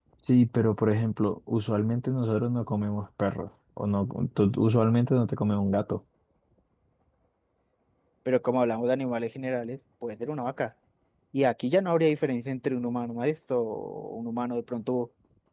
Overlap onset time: none

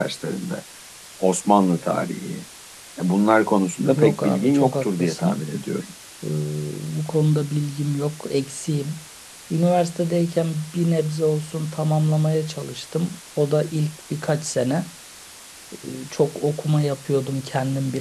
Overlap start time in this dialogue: 3.8 s

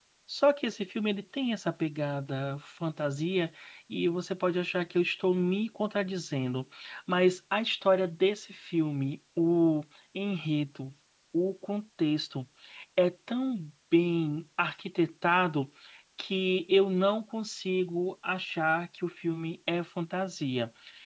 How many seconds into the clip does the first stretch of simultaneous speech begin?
none

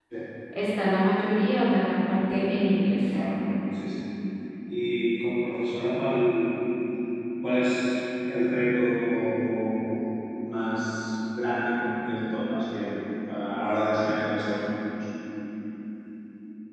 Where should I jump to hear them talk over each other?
none

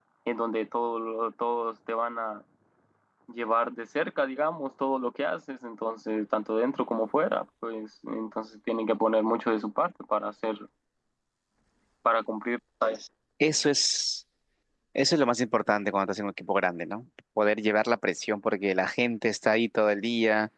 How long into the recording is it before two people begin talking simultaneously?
none

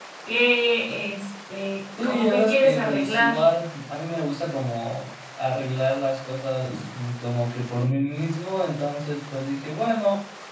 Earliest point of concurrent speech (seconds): 2.0 s

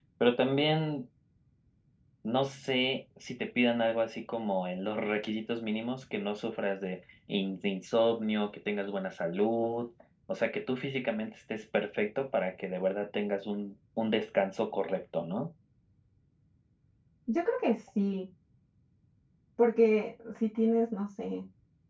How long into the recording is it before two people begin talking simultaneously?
none

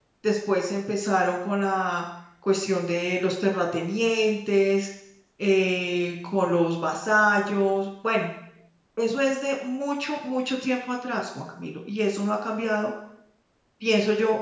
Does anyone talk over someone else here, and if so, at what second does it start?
none

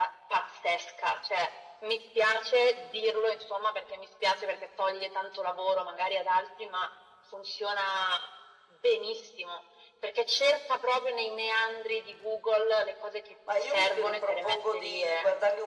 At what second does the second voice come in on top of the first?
13.5 s

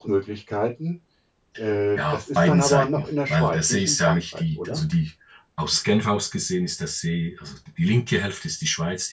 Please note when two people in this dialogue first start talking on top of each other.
2.0 s

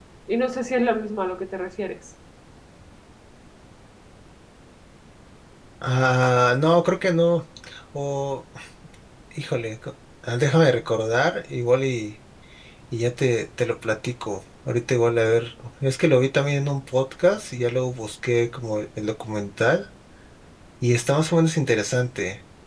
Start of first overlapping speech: none

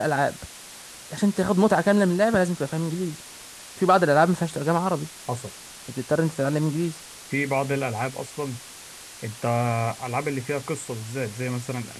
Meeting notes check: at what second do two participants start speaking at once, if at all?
none

